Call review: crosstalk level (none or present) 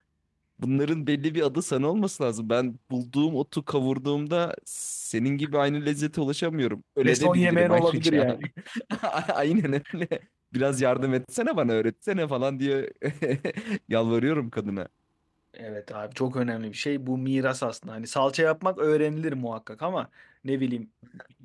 present